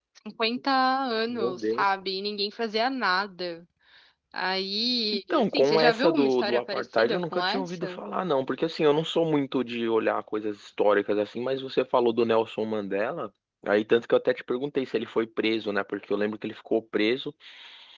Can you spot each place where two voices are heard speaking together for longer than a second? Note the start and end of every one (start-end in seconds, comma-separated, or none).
5.3-8.0